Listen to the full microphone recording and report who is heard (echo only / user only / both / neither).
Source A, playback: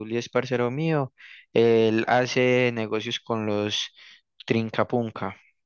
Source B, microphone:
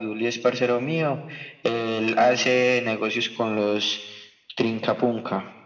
echo only